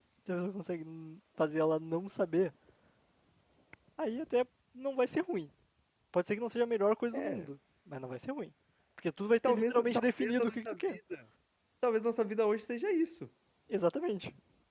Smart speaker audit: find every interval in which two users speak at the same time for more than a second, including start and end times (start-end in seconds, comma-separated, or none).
9.4-11.0